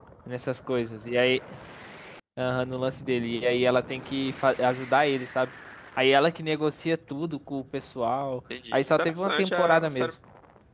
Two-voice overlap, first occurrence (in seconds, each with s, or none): 8.5 s